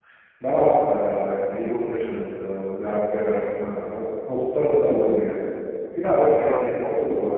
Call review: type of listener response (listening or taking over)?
listening